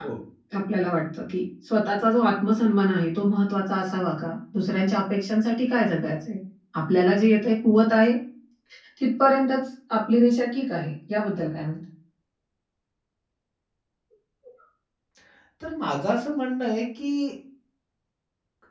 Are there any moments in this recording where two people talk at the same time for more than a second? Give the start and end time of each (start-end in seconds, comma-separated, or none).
none